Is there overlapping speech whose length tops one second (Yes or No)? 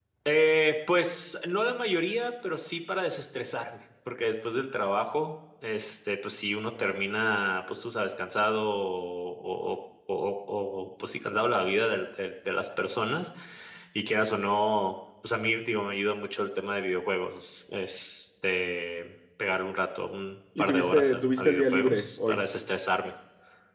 Yes